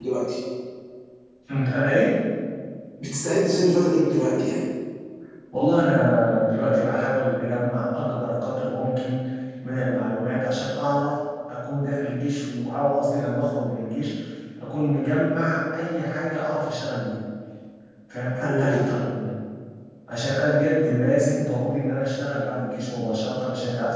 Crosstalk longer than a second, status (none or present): none